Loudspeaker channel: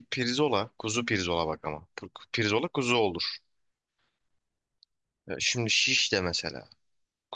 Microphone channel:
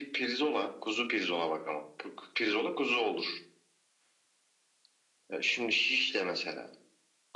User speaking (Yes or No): No